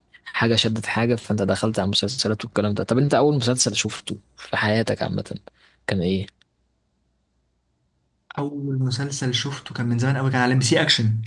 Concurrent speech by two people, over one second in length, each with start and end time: none

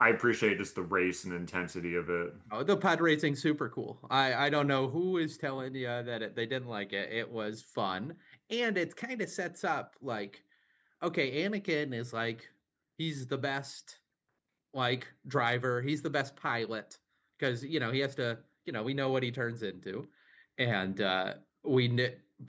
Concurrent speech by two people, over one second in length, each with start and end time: none

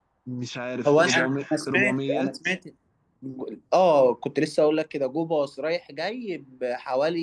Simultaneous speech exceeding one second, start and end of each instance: 0.9-2.3

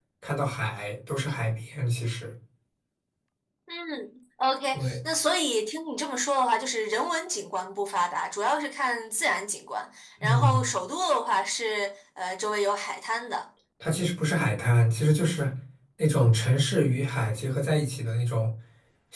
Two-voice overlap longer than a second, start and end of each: none

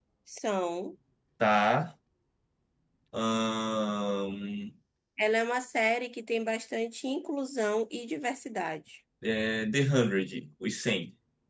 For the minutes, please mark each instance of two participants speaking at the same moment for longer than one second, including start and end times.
none

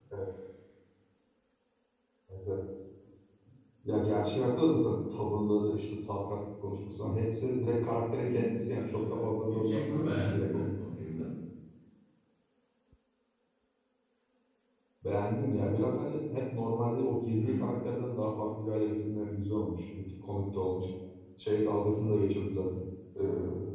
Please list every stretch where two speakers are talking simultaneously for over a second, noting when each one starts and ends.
8.2-11.0

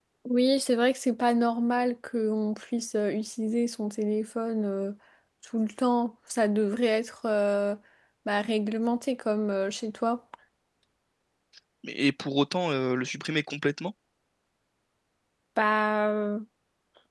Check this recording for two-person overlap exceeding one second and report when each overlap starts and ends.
none

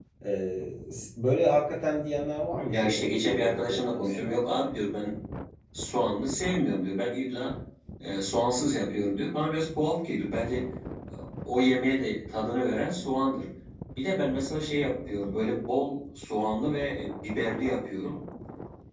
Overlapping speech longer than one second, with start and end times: 2.7-4.3

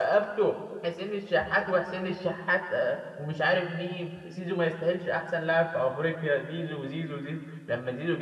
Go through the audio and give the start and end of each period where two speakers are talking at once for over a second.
none

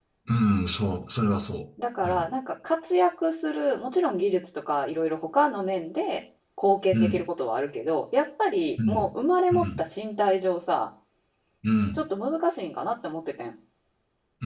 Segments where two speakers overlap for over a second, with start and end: none

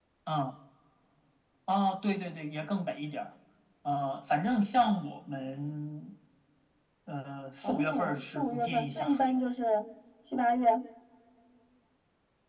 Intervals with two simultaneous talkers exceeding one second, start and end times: 7.6-9.4

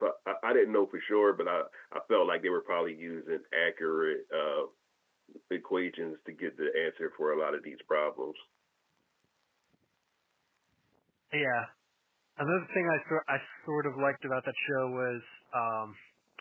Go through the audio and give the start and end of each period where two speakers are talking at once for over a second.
none

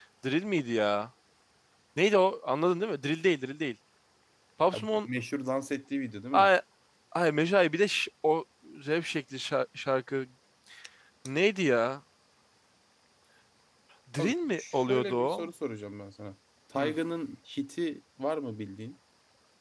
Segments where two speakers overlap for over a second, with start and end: 14.2-15.5

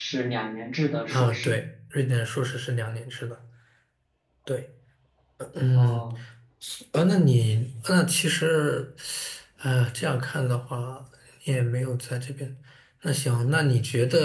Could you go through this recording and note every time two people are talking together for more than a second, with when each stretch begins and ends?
none

